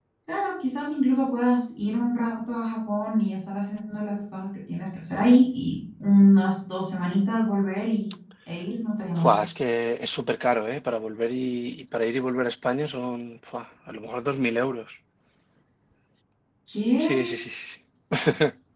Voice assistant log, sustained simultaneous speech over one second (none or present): none